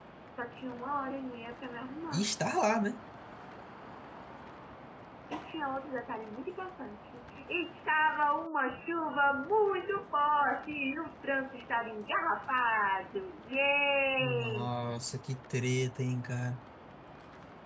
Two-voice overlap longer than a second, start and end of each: none

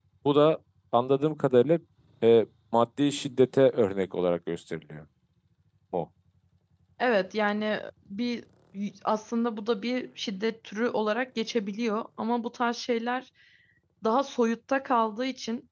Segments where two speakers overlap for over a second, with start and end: none

